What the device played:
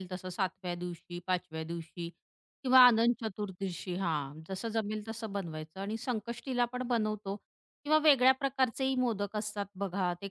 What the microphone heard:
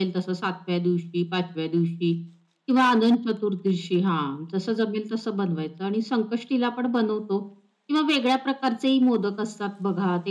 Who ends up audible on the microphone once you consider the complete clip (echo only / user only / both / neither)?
echo only